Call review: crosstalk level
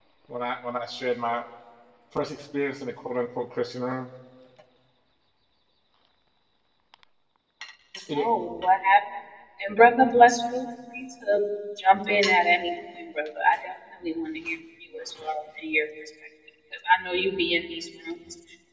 none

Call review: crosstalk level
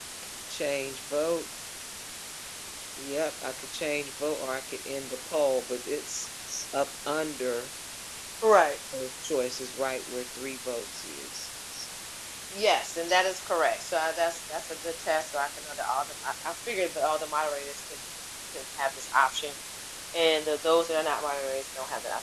none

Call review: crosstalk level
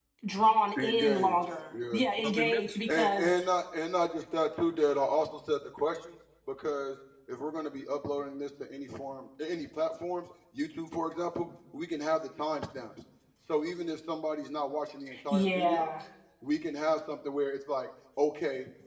present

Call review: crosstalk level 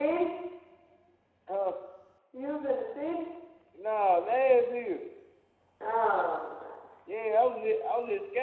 none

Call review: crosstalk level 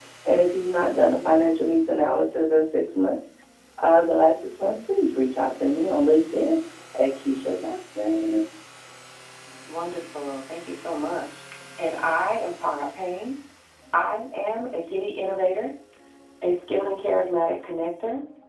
none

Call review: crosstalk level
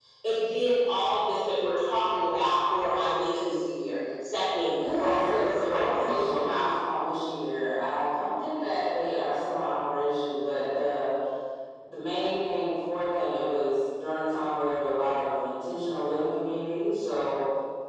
present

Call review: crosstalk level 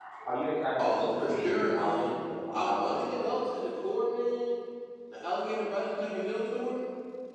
present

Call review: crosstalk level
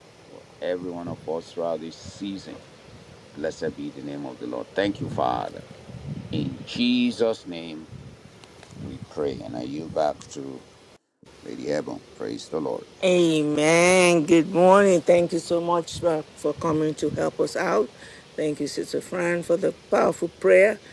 none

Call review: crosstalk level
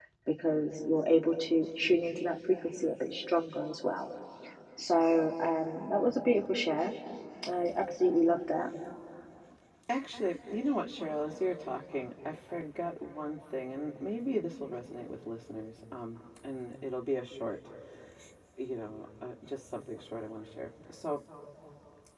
none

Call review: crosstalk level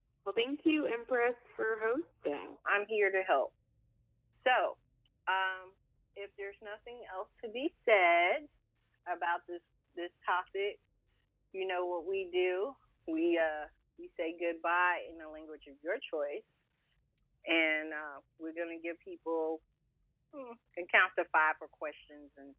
none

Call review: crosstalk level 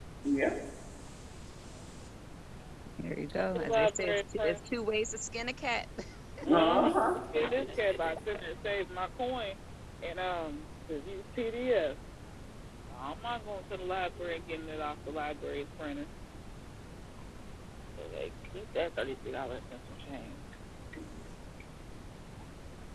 present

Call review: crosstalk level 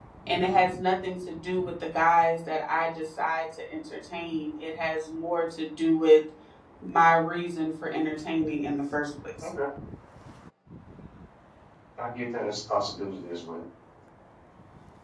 none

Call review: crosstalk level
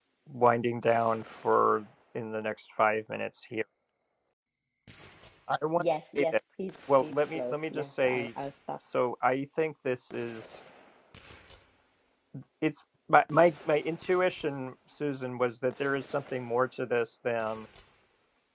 present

